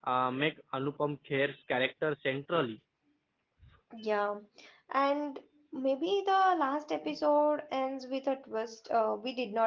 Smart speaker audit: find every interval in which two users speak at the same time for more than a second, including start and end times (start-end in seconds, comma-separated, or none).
none